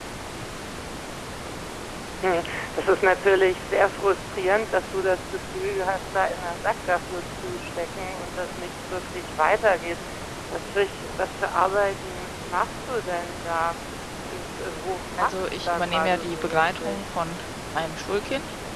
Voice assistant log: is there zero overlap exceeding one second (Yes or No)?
No